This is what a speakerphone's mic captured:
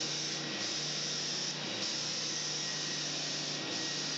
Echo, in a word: none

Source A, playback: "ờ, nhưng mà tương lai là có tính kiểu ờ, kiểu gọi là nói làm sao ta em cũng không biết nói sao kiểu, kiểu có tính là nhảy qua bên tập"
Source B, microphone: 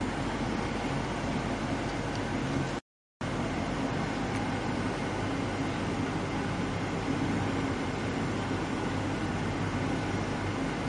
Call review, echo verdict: none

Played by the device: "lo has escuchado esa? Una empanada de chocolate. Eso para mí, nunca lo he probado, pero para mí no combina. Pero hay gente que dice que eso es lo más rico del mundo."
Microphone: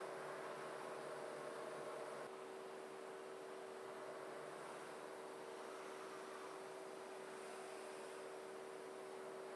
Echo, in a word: none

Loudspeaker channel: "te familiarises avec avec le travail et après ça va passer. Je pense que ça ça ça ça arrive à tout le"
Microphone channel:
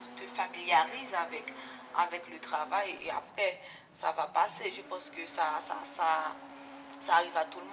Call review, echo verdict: present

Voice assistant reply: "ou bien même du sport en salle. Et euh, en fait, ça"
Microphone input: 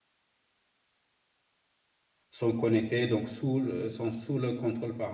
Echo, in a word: none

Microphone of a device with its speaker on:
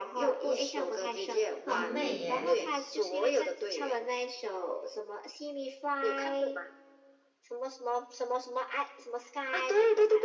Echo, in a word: present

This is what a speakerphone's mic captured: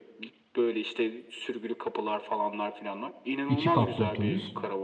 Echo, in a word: present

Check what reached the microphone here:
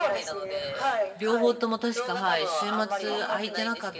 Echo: present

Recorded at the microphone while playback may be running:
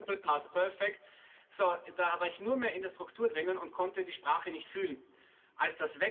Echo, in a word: none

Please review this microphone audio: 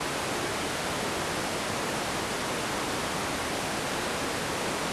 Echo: none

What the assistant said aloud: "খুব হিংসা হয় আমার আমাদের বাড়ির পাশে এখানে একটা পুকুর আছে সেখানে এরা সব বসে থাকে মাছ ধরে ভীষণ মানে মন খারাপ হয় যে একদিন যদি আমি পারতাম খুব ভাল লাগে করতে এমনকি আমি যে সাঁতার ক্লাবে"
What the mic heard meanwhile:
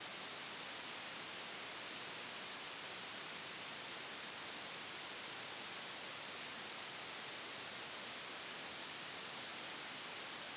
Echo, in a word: none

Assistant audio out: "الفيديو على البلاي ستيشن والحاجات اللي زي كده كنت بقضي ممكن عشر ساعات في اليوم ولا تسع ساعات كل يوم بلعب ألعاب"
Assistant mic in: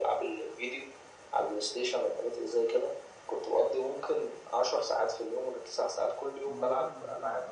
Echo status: present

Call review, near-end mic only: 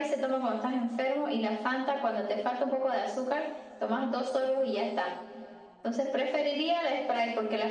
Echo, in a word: present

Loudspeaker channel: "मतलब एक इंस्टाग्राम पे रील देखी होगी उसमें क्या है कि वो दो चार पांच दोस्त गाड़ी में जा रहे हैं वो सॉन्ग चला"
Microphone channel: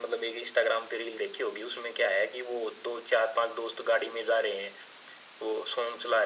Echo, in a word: present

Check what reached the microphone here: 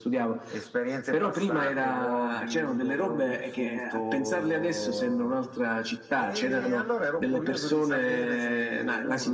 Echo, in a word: present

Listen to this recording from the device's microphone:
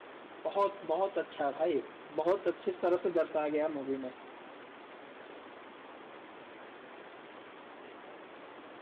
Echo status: none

